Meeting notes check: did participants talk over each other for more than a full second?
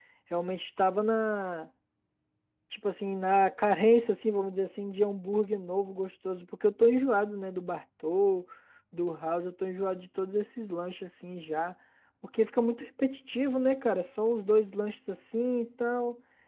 No

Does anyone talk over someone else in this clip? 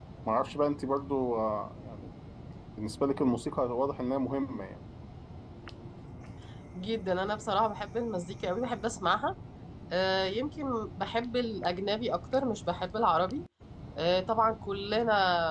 No

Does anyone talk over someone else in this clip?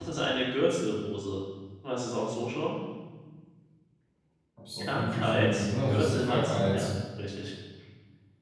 Yes, from 4.8 s

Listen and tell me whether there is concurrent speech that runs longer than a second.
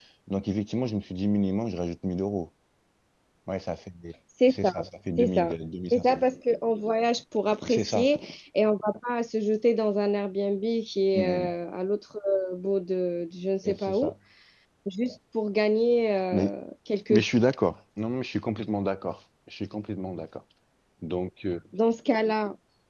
No

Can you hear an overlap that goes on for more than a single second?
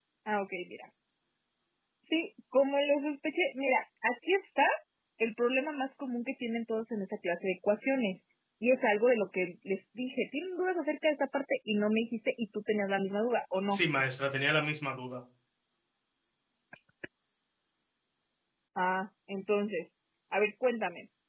No

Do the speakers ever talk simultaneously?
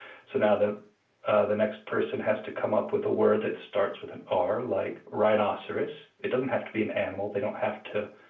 No

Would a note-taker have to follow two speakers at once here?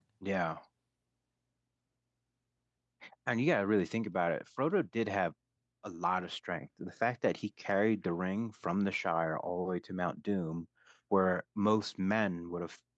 No

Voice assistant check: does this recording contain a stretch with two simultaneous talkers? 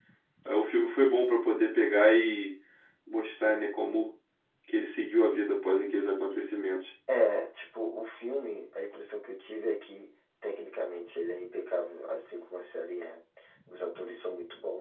No

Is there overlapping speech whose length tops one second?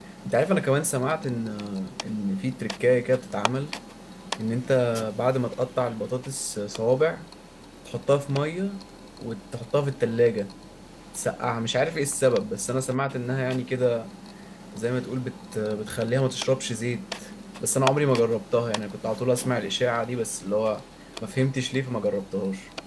No

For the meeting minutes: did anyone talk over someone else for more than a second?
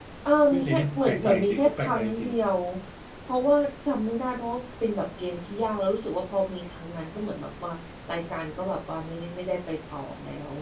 Yes, from 0.5 s

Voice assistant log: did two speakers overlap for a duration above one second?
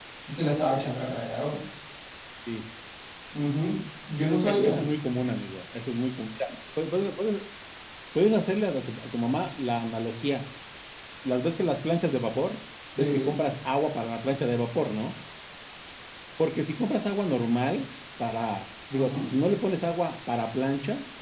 No

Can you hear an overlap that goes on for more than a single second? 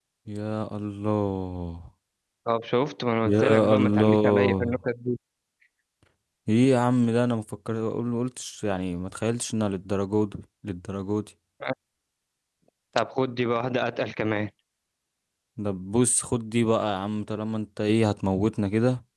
Yes, from 3.2 s

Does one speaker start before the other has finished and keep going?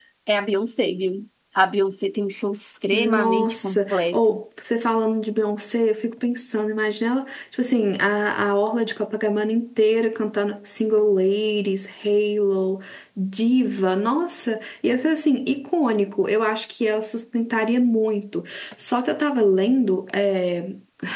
Yes, from 2.9 s

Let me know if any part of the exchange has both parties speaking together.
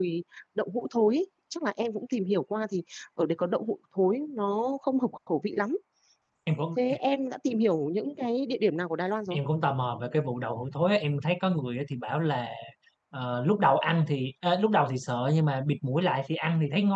No

